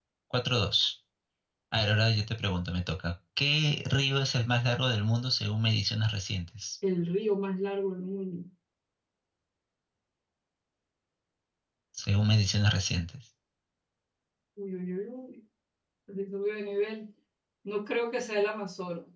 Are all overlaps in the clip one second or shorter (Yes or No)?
Yes